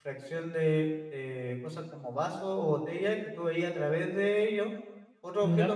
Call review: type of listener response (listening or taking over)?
listening